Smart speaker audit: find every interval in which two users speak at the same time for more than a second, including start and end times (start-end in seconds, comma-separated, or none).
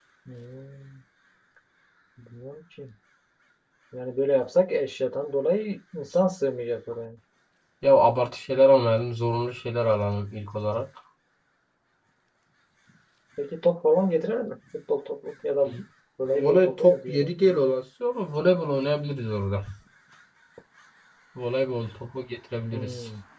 16.2-17.6